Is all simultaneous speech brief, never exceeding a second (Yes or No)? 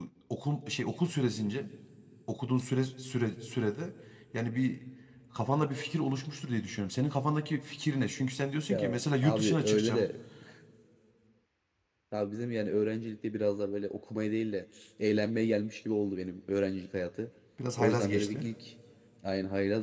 No